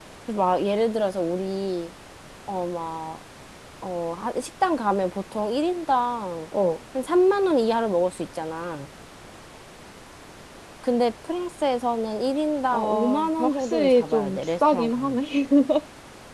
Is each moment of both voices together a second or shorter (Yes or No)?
No